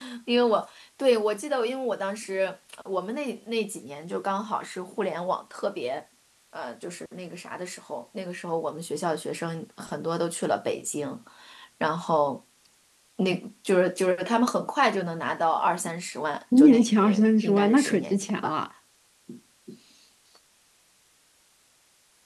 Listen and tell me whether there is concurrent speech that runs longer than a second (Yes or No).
Yes